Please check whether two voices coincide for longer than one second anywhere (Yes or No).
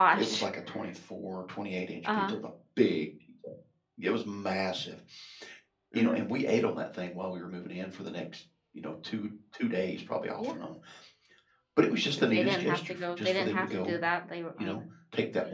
Yes